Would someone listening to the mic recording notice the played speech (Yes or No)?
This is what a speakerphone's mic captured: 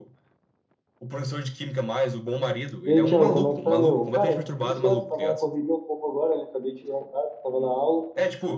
Yes